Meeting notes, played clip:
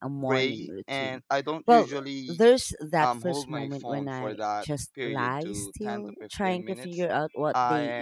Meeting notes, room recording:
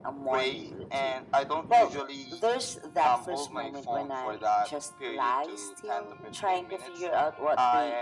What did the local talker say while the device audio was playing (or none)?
none